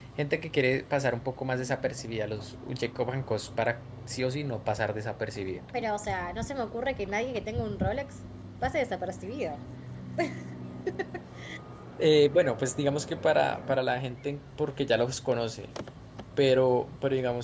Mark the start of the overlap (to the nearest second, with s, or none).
none